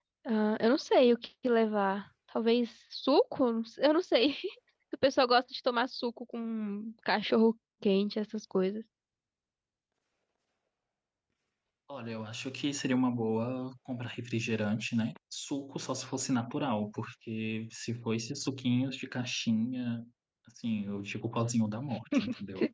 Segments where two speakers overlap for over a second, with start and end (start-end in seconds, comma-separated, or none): none